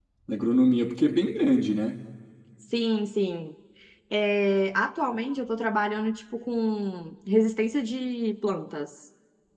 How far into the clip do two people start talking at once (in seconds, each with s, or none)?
none